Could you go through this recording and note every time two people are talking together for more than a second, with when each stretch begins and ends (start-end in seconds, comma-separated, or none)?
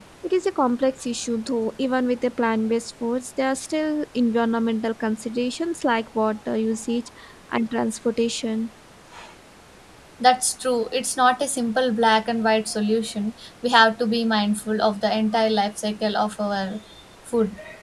none